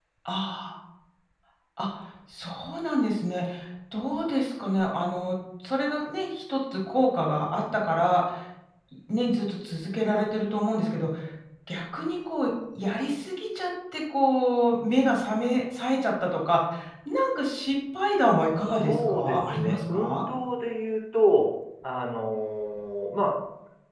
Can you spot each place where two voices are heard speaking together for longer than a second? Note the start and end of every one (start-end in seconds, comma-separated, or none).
18.8-20.2